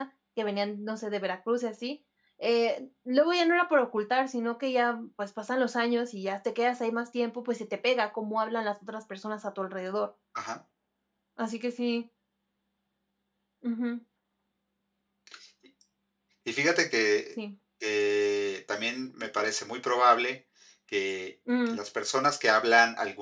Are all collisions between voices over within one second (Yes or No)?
Yes